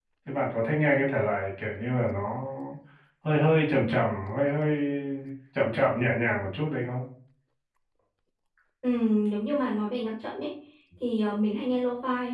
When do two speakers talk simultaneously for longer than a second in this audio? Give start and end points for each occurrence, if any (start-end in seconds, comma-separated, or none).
none